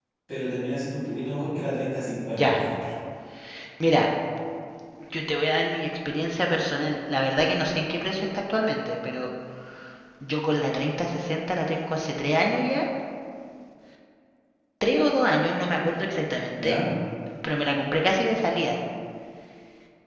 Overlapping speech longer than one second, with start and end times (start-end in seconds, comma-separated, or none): none